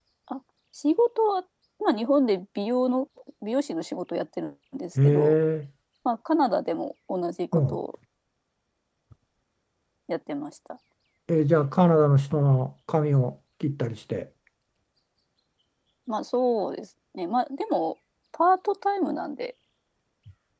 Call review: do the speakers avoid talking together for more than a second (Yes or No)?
Yes